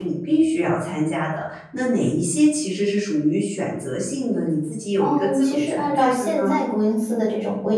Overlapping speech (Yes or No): Yes